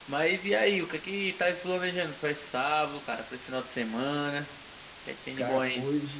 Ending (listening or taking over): taking over